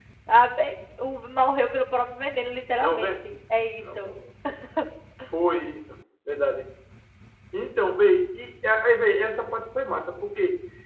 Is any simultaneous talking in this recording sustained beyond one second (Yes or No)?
No